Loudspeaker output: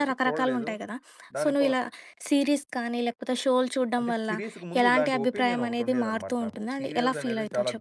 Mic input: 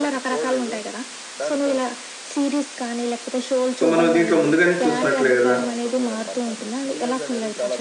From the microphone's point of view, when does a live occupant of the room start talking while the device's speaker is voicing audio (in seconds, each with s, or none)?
3.8 s